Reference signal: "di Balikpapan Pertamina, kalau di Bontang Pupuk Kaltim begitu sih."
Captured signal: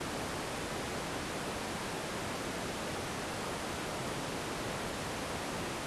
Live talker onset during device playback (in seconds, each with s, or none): none